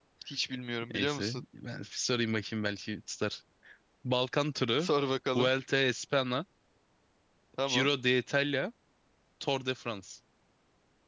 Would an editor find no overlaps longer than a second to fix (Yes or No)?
Yes